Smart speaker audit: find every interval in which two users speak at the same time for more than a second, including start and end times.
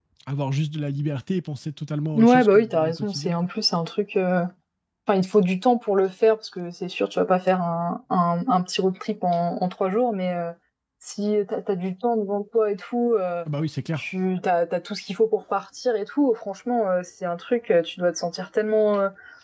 2.1-3.4

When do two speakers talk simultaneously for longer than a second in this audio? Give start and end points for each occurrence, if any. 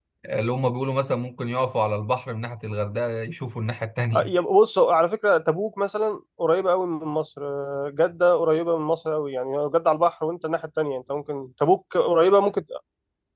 none

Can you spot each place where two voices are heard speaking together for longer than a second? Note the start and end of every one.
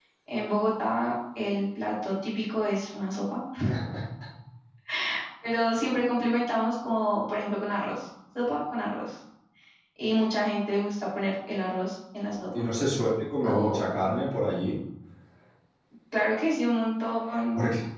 none

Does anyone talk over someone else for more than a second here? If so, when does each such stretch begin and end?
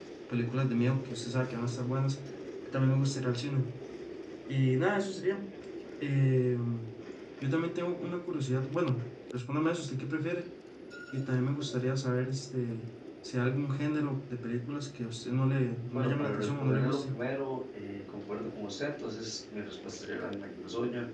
15.9-17.1

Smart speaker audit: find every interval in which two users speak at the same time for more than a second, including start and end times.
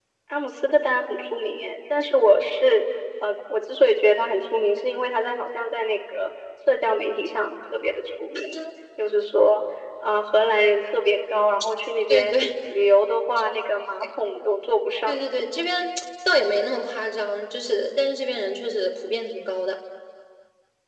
none

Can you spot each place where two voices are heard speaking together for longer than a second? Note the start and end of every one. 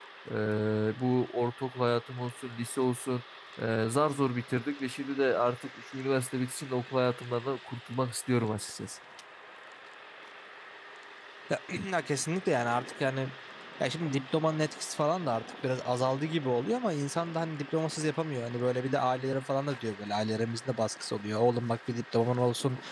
none

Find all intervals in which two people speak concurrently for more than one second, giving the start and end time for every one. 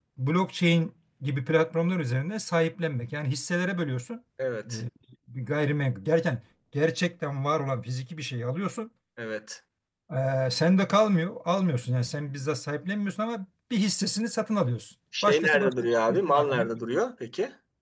15.2-16.7

